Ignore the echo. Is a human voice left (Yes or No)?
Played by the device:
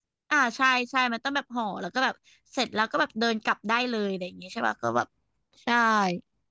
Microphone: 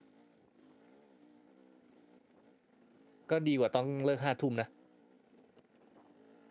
Yes